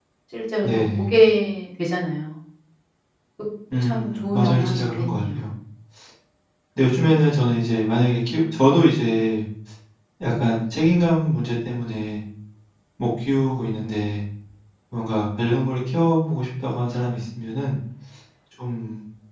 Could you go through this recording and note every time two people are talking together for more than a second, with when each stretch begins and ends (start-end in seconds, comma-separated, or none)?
3.9-5.4